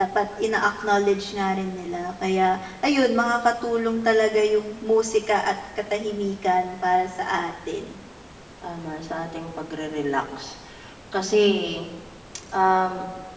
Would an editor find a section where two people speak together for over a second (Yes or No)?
No